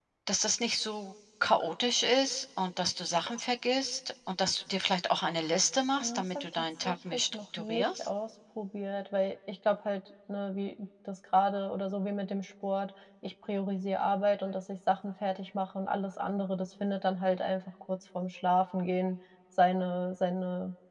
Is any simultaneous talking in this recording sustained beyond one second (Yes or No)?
Yes